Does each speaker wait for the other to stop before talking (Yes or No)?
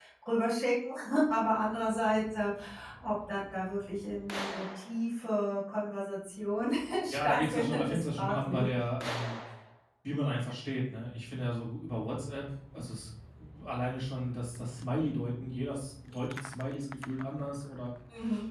No